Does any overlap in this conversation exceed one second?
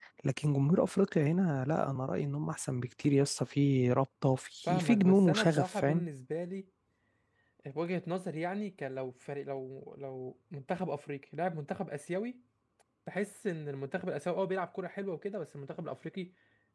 Yes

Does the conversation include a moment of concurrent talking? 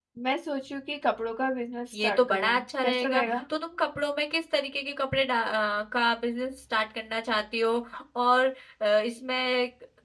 Yes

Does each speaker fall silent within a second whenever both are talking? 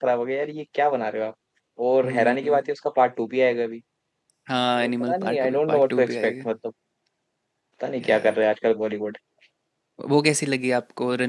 No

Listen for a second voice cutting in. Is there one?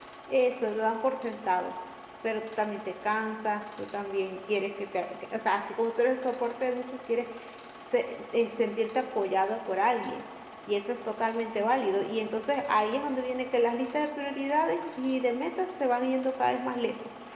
No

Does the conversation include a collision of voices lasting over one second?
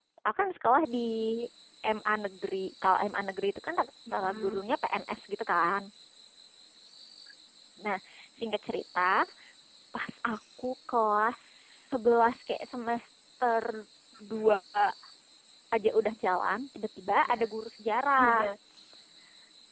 No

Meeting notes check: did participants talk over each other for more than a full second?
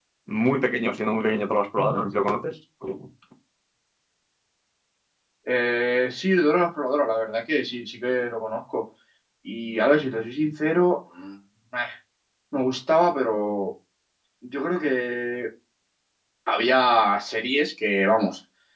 No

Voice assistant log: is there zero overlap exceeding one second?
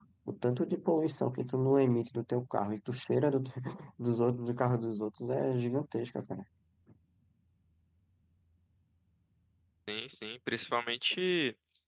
Yes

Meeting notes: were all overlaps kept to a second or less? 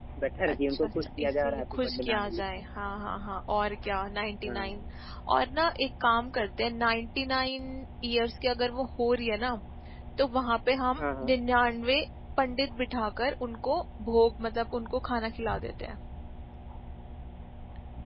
No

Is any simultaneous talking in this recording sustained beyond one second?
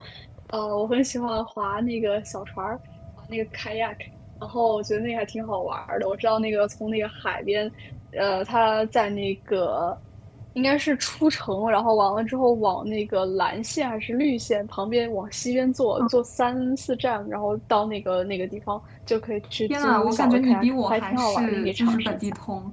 Yes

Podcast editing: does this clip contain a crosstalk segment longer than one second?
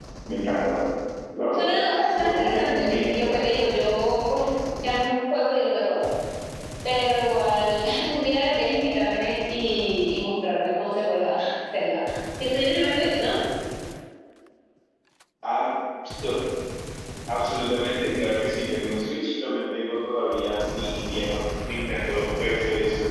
Yes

